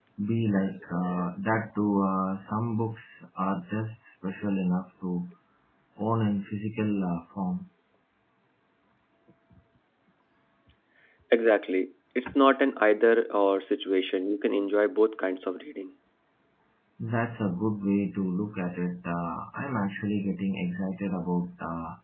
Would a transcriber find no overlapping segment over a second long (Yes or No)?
Yes